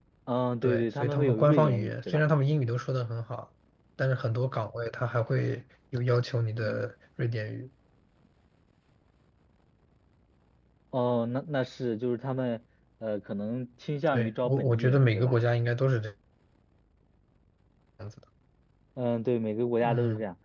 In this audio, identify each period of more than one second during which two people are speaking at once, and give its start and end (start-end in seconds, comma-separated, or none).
0.6-2.2, 14.1-15.3